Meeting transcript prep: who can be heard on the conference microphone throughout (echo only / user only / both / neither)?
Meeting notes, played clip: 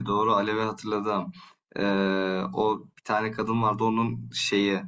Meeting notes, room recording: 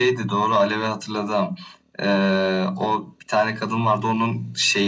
echo only